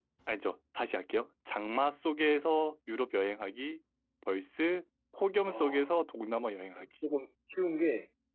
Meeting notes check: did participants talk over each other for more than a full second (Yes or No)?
No